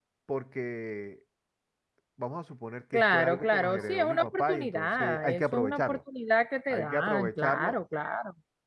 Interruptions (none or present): present